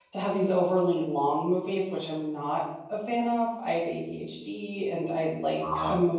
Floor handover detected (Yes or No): No